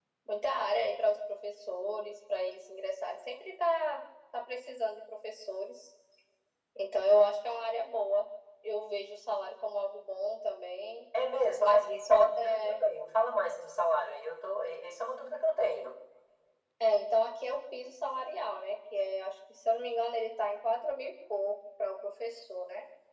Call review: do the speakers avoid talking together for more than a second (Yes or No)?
No